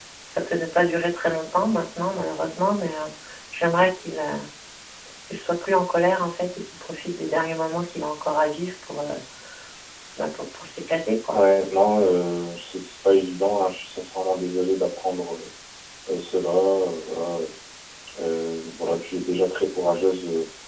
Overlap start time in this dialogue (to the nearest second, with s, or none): none